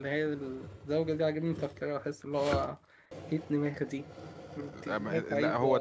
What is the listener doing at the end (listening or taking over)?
taking over